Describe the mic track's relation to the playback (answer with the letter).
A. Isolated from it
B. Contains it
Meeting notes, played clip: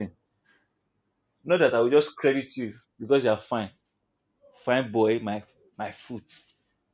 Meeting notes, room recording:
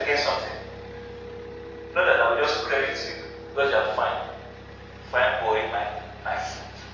B